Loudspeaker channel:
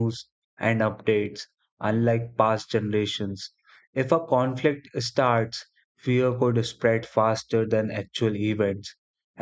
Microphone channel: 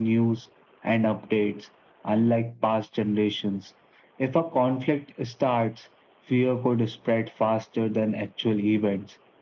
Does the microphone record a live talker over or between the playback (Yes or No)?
No